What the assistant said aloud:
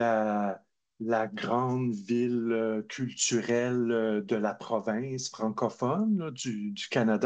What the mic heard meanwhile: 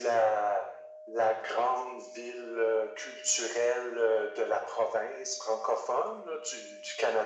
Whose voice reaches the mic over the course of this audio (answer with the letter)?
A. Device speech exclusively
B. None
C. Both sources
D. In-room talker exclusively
A